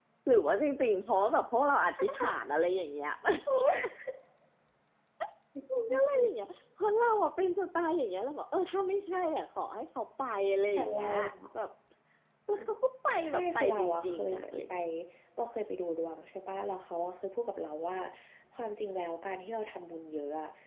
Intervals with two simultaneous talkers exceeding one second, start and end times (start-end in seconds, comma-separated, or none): 13.2-14.7